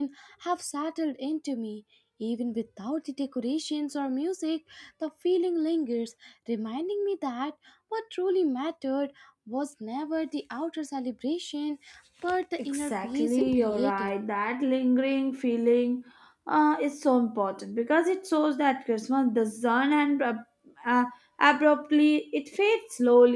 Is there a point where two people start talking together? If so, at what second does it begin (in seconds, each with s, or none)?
12.7 s